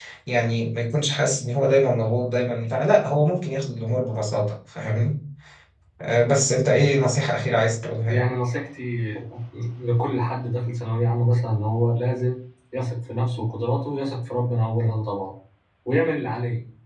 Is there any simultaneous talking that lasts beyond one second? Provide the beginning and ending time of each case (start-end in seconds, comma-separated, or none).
none